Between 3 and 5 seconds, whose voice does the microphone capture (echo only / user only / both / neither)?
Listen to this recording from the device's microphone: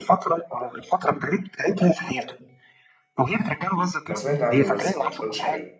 both